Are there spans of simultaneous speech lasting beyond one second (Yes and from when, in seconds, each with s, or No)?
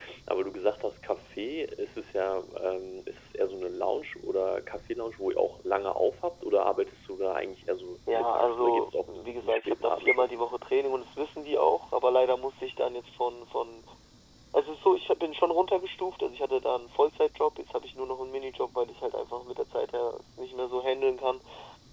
Yes, from 8.1 s